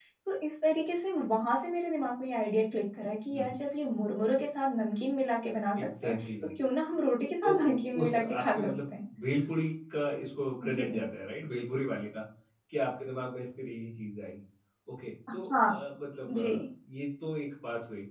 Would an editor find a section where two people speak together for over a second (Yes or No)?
Yes